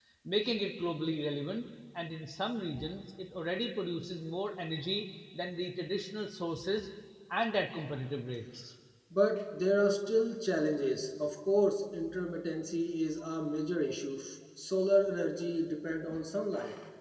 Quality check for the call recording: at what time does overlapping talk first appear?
none

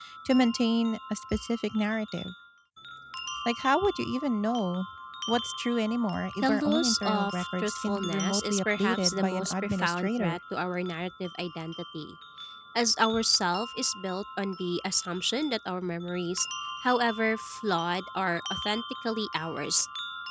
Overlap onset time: 6 s

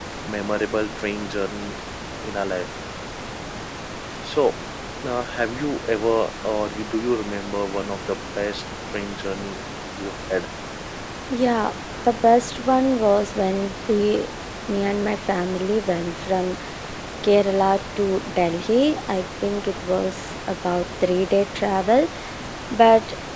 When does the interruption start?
none

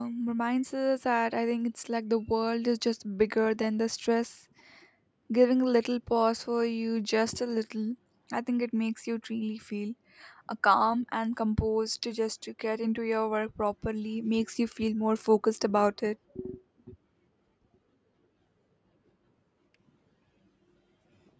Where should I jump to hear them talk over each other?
none

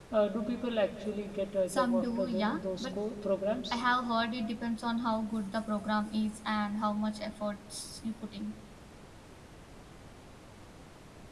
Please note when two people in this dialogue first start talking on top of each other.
2 s

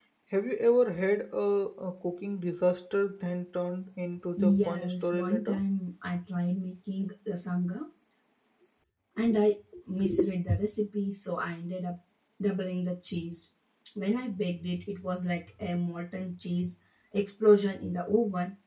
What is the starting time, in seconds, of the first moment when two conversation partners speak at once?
4 s

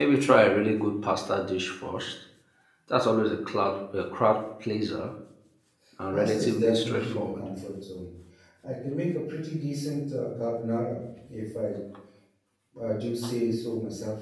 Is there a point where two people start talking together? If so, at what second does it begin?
6 s

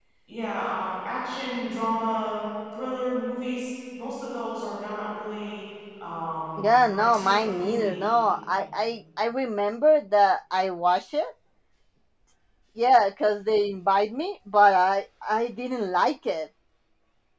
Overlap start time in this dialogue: 7 s

